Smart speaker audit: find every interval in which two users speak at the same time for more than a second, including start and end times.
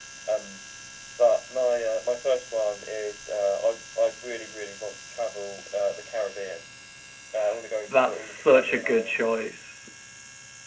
8.0-9.2

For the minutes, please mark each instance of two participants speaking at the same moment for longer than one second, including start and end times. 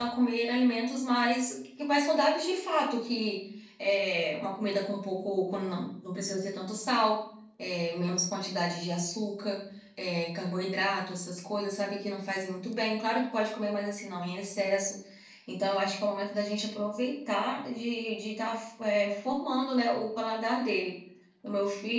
none

